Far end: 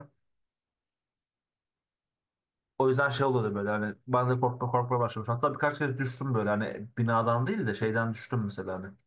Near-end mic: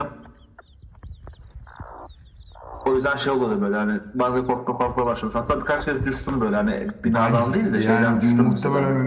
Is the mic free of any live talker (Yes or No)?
No